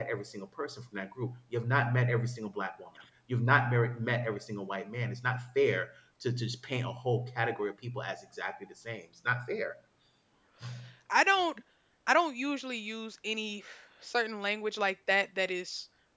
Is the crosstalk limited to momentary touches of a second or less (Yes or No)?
Yes